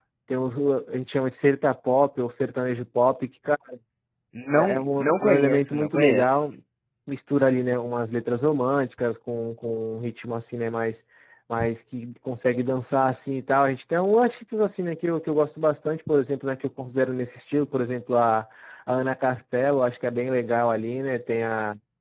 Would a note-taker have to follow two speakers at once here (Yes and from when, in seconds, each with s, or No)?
Yes, from 4.5 s